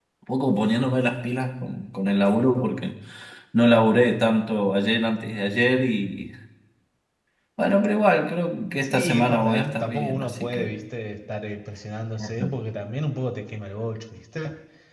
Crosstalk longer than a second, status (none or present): present